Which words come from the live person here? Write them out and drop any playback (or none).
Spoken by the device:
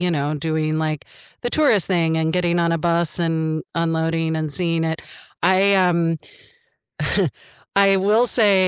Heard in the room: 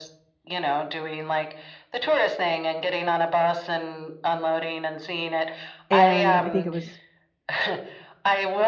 and I think it was